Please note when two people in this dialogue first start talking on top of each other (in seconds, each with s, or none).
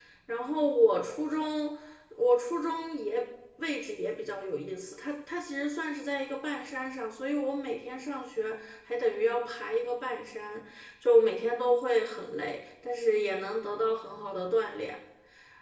none